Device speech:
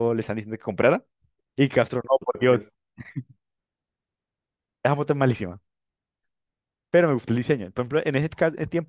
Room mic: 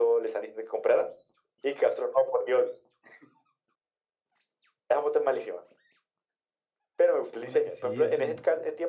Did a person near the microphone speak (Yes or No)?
Yes